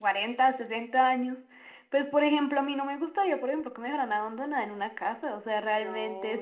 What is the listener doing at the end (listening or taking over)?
listening